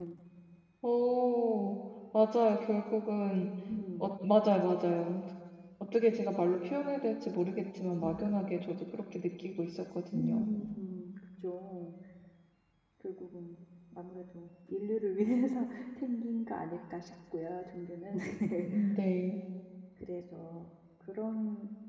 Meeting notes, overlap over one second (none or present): none